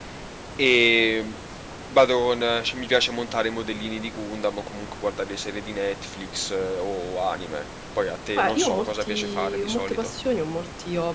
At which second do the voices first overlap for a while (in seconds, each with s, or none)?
8.4 s